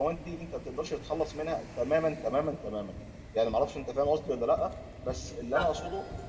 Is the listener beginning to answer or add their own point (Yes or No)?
No